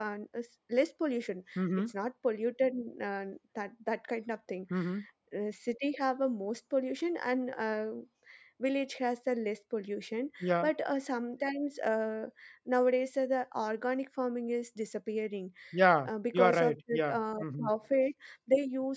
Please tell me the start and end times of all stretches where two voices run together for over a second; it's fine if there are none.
16.0-17.7

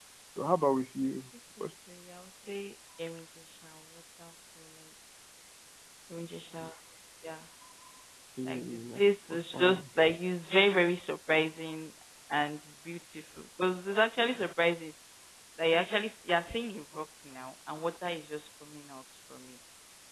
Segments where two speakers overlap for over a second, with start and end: 8.5-9.8

